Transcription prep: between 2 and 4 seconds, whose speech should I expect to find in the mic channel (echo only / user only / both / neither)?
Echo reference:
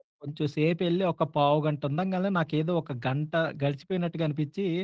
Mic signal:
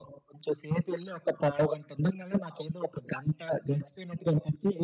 echo only